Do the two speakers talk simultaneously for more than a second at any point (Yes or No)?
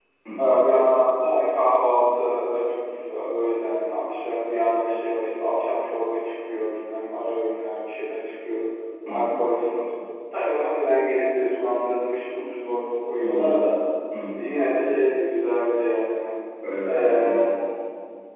No